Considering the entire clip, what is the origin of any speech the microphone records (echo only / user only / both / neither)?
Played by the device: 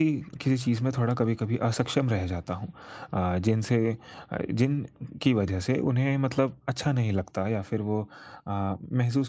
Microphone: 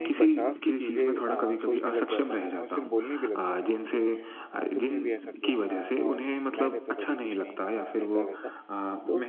both